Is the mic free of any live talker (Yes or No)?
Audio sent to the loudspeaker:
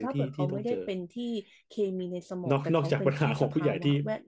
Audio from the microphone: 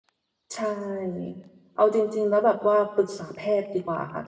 No